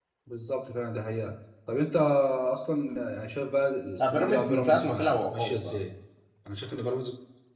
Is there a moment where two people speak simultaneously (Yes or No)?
Yes